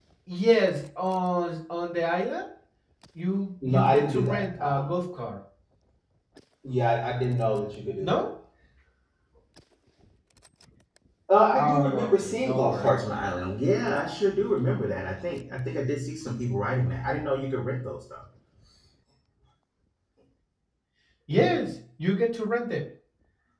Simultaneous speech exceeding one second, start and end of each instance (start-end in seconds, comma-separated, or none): 3.6-4.9, 11.6-13.0